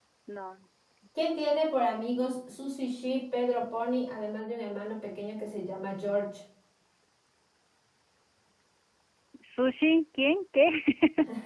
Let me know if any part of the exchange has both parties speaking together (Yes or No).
No